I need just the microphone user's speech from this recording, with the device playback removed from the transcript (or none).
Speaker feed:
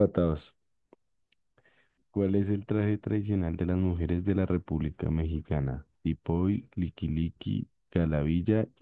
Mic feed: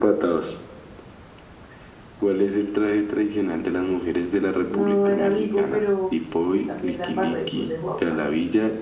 No era Vigo, pero yo también la embarré, puse Juan.